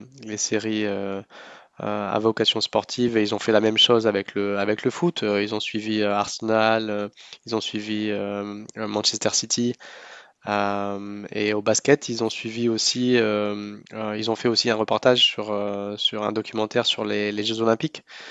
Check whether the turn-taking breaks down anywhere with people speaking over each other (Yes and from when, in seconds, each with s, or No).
No